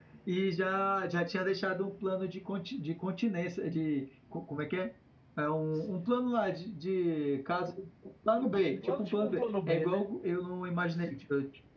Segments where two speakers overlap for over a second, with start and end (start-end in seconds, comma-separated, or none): 8.7-10.0